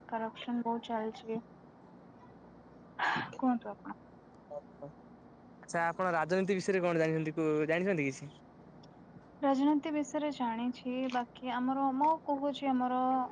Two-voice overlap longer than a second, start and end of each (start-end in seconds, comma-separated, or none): none